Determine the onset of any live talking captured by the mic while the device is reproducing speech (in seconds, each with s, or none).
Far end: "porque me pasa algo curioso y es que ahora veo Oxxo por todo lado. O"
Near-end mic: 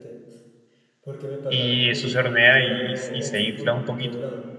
1.5 s